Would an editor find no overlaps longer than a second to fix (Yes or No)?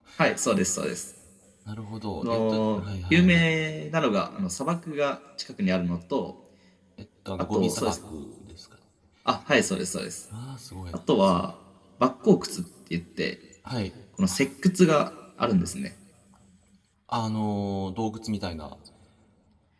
No